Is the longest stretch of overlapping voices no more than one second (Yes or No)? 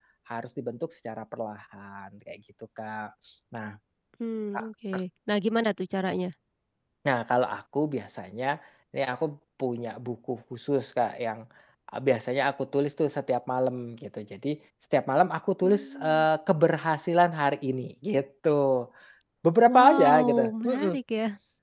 No